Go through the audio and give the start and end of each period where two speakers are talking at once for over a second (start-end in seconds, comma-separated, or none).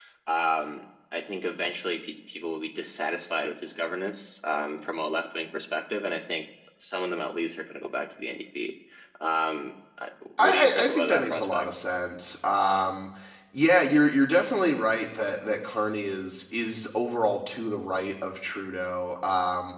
10.4-11.7